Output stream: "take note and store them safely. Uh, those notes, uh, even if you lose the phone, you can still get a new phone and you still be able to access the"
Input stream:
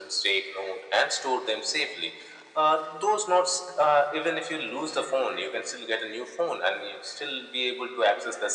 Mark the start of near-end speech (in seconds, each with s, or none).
none